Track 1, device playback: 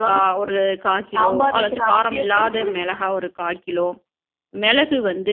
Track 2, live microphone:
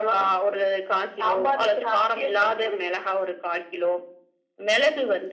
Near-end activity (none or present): none